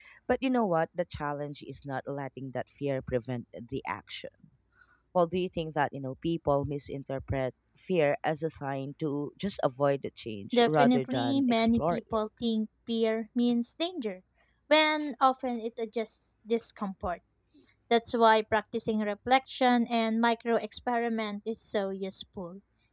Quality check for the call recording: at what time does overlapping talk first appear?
10.5 s

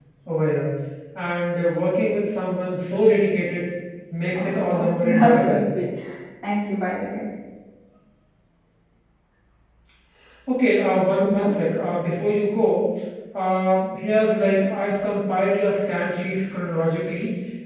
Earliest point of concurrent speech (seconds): 4.3 s

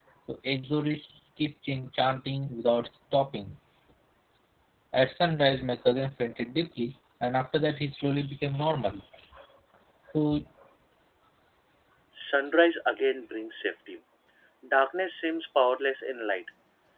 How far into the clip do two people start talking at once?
none

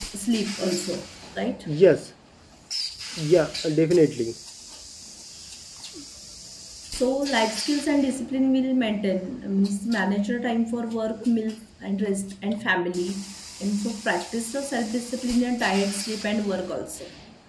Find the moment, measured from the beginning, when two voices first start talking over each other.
none

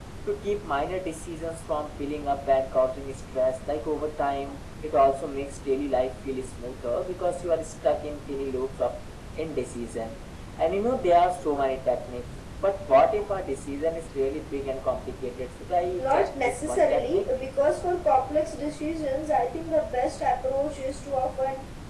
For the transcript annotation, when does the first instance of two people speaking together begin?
16.0 s

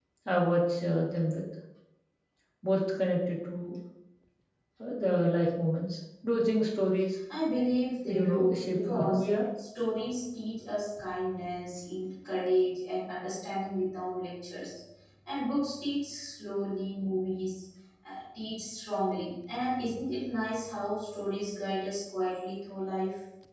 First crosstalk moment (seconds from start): 8.1 s

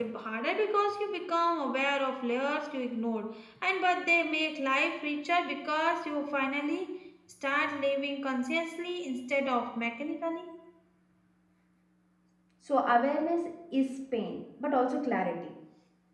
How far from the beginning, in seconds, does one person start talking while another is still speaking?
none

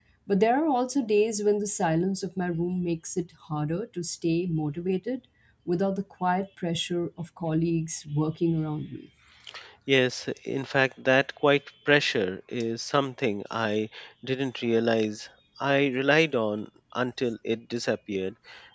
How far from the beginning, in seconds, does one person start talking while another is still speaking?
none

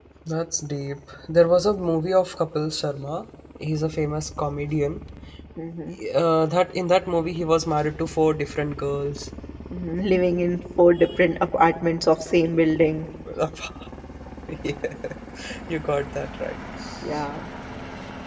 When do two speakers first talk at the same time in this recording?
none

